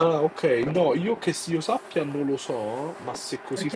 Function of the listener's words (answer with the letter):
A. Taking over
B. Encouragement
A